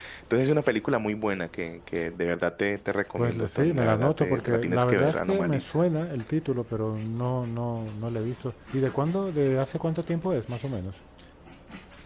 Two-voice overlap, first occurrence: 3 s

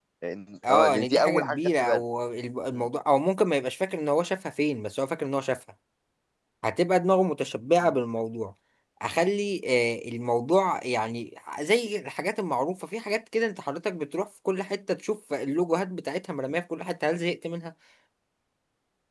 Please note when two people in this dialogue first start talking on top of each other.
1 s

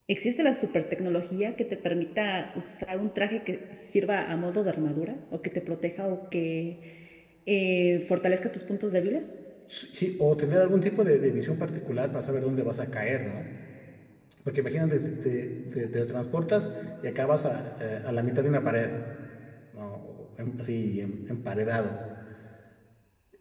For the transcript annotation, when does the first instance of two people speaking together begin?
none

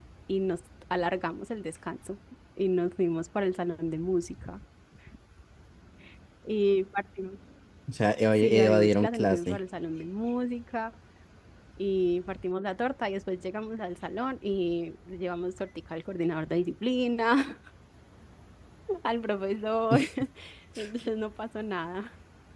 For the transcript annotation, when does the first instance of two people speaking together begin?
8 s

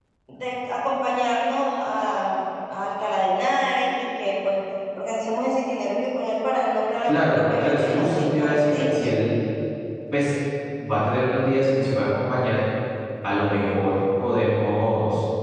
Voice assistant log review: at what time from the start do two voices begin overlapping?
7 s

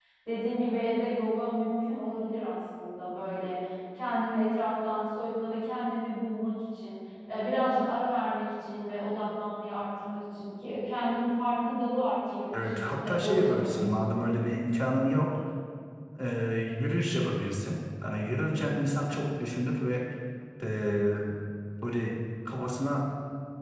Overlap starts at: 13 s

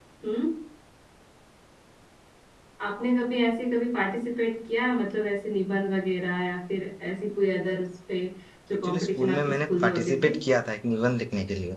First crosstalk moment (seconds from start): 9 s

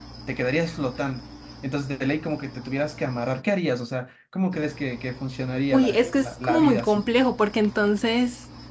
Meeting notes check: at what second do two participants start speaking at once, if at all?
6 s

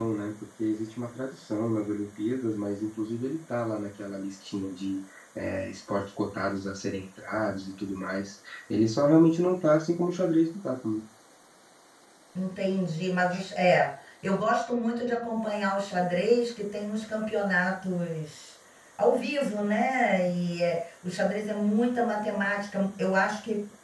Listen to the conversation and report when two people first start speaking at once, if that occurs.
none

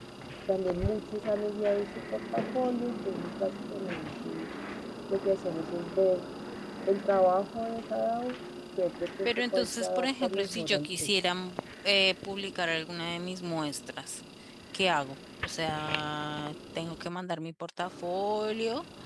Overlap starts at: 9 s

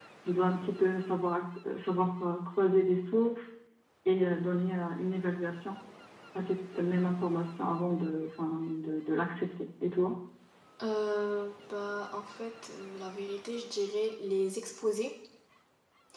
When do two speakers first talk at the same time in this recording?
none

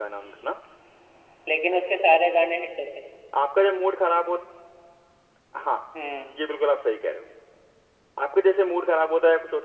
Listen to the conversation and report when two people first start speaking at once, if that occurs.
none

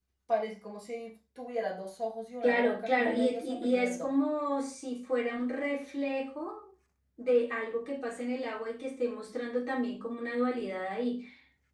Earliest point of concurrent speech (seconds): 2 s

